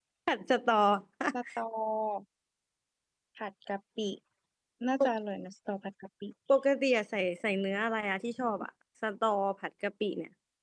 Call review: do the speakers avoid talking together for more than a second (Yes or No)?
Yes